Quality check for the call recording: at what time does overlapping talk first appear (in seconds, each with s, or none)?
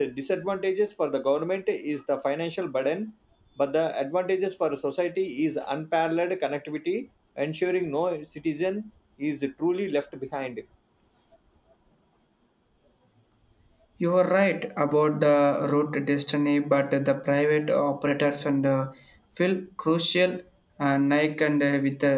none